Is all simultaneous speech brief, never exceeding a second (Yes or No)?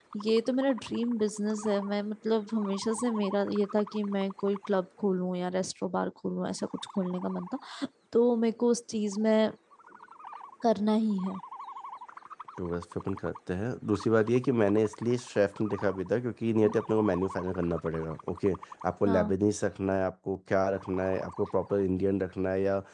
Yes